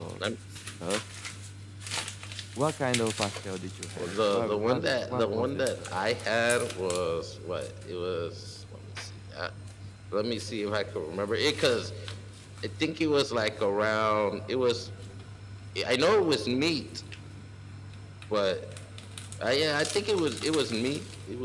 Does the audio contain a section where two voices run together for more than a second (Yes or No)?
Yes